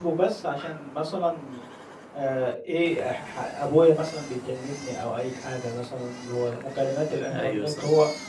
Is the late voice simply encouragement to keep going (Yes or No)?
Yes